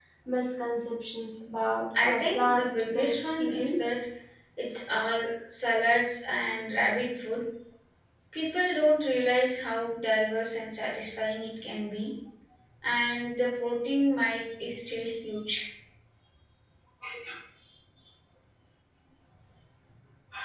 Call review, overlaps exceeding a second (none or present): present